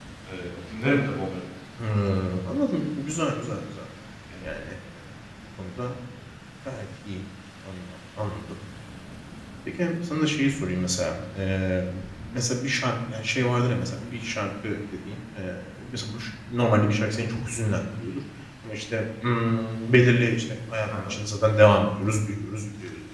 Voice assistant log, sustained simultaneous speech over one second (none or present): none